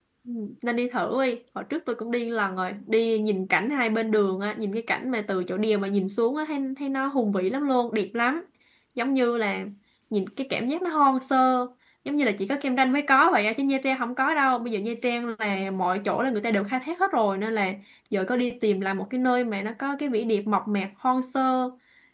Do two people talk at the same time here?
No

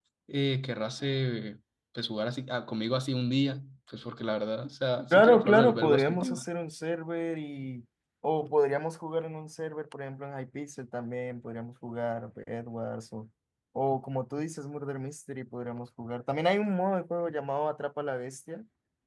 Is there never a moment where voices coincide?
No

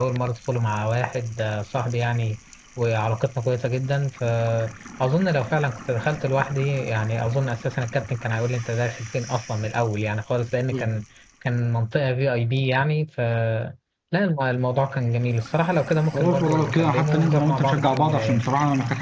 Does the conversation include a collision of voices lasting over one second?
Yes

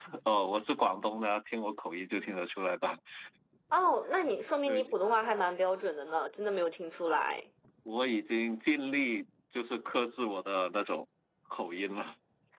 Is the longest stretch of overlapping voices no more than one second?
Yes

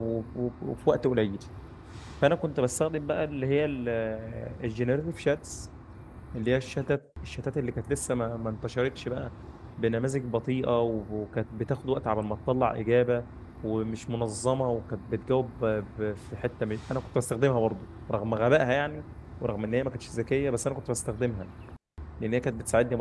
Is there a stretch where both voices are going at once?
No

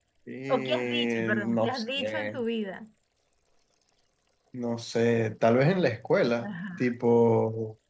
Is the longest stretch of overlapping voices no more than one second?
No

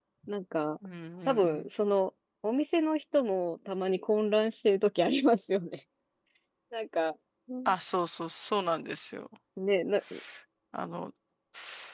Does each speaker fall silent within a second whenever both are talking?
Yes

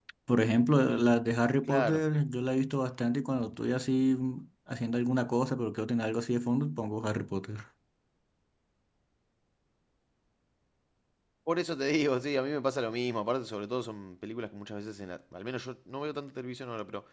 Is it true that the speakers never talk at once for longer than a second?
Yes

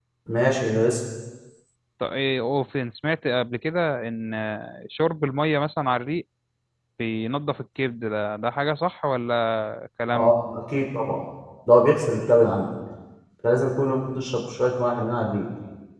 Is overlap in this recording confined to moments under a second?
Yes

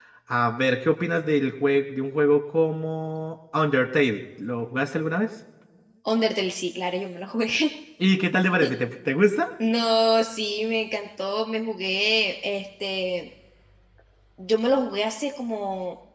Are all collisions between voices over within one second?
Yes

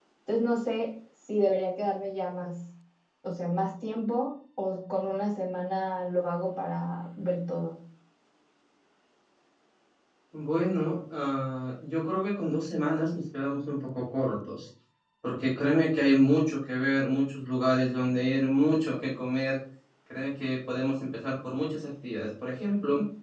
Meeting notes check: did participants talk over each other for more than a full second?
No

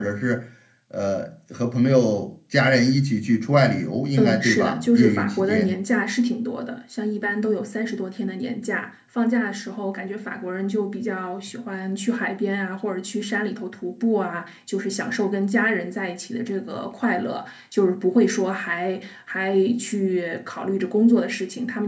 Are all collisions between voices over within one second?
No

